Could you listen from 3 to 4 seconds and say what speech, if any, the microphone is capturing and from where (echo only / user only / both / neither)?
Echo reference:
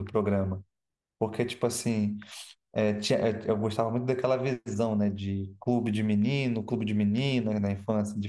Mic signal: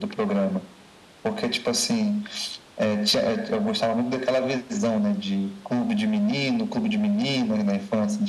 echo only